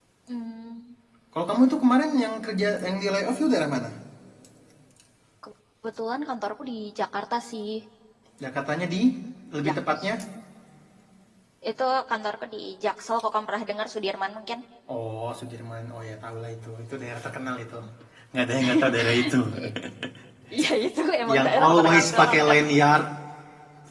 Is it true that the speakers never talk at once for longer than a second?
No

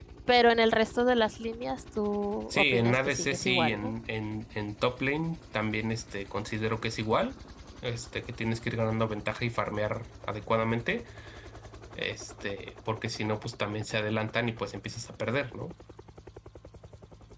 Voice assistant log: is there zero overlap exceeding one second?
No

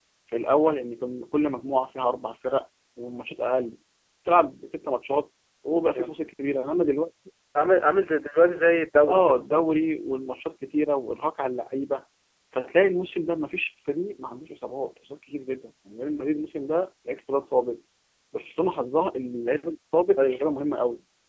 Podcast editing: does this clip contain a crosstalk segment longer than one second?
No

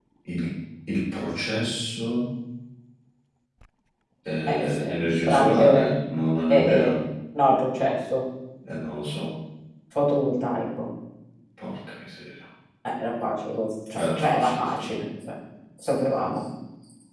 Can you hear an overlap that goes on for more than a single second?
Yes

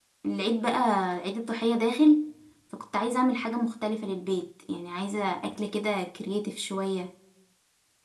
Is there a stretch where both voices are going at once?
No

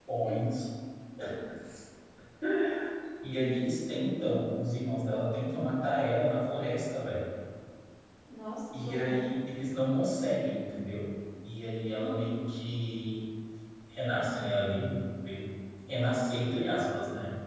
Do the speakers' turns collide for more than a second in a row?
No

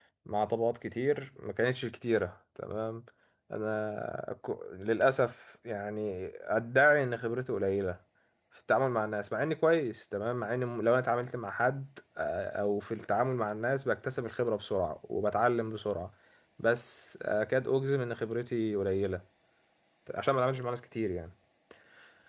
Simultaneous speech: No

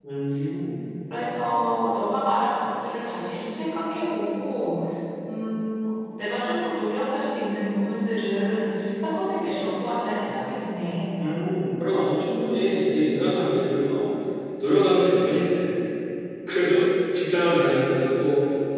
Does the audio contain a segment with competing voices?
No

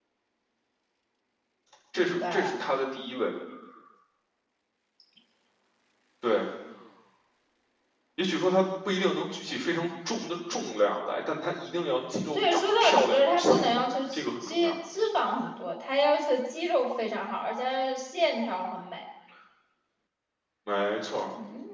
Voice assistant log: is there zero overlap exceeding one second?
No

